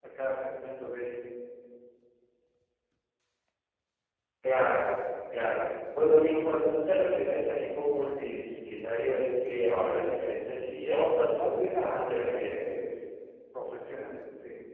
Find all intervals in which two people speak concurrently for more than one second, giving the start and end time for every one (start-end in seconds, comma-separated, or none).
11.3-12.6